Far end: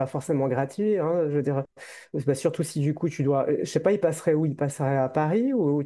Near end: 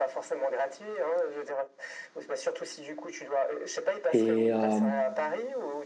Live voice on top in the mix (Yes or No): Yes